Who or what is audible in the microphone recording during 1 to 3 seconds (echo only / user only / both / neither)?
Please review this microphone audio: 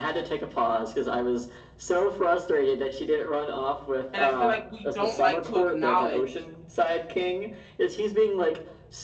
echo only